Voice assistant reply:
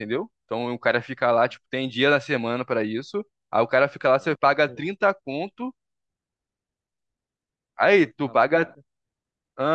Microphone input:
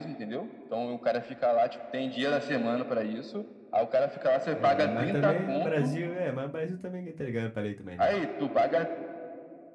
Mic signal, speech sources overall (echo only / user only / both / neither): both